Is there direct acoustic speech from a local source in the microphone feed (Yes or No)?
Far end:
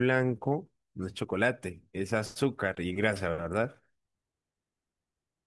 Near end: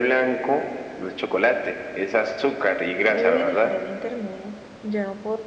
Yes